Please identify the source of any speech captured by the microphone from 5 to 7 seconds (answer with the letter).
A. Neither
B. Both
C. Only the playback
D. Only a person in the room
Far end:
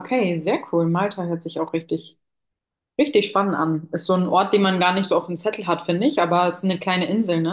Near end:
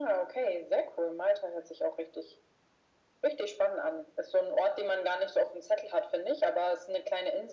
C